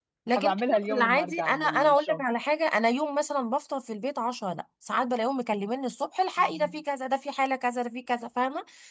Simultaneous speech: Yes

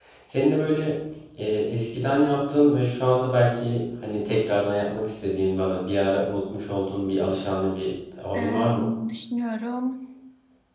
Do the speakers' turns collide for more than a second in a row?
No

